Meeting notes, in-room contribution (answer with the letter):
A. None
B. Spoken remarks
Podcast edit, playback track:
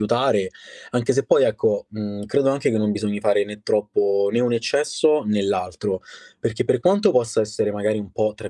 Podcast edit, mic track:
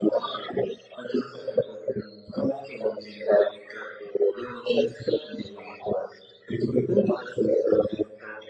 A